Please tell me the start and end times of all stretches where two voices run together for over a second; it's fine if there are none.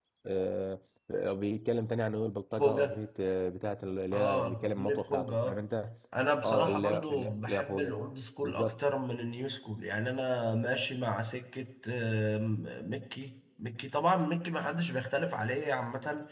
4.1-5.6, 6.4-7.9

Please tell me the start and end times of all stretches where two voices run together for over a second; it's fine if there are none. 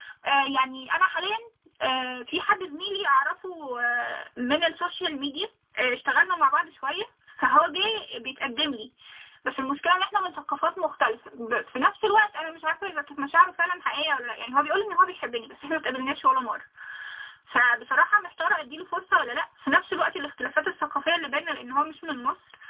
none

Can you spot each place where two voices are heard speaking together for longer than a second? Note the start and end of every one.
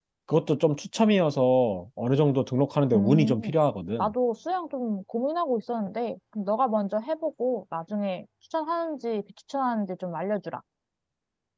none

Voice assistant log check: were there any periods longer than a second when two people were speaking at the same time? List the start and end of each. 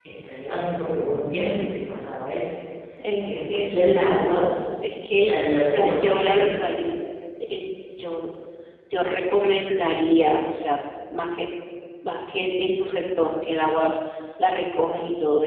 5.2-6.6

